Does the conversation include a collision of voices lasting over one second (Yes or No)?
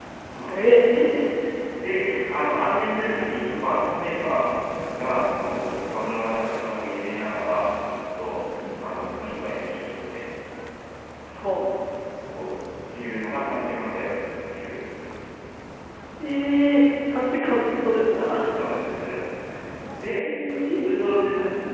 No